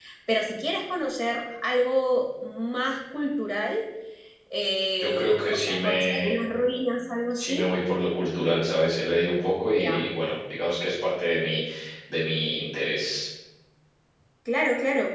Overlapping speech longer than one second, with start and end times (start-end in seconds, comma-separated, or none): 5.0-6.3